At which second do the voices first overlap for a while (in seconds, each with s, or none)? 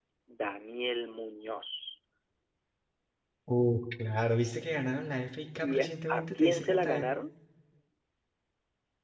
5.6 s